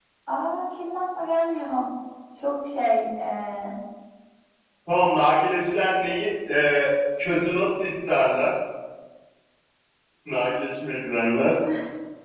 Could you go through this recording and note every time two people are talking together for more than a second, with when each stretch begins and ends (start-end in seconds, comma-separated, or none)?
none